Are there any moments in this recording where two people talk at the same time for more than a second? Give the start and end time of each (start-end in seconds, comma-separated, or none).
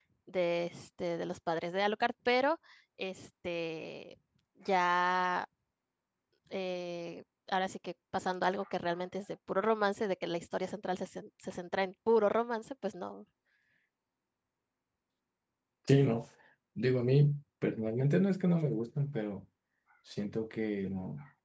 none